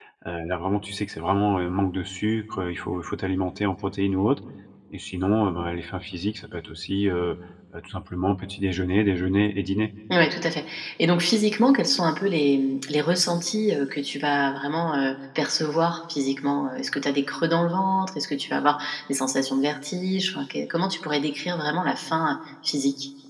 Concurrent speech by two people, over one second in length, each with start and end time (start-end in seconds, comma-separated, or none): none